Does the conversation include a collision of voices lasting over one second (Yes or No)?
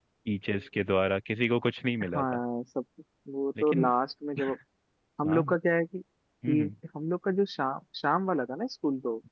No